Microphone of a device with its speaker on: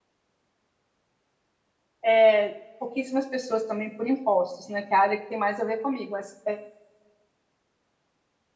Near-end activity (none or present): present